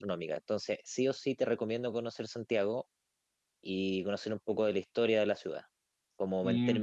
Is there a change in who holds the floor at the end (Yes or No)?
No